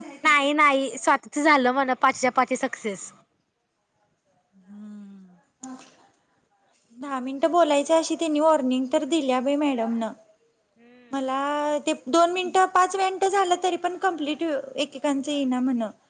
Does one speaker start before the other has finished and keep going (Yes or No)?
No